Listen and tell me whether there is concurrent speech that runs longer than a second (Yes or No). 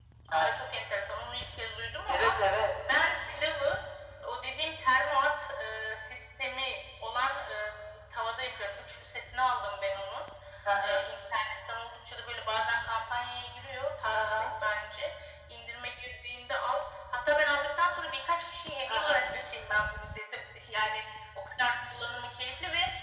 No